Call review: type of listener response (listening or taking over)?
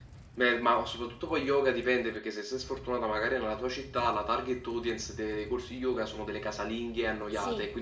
taking over